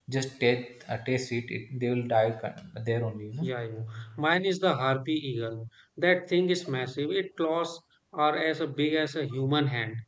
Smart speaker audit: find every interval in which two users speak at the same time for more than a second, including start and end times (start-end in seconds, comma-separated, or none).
none